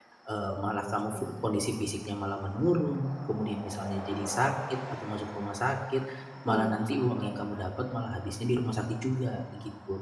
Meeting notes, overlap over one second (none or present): present